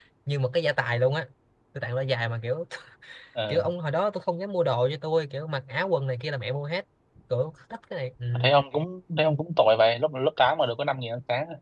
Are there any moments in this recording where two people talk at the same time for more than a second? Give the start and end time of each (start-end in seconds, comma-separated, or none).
none